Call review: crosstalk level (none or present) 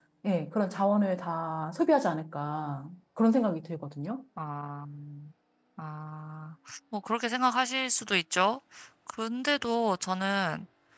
none